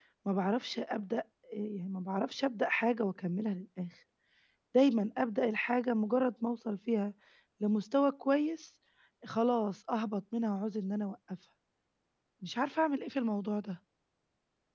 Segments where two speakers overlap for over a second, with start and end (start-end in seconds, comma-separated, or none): none